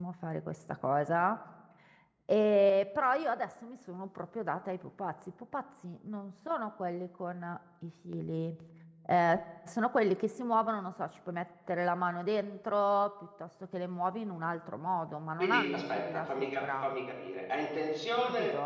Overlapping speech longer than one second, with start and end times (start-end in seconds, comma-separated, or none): 15.4-17.0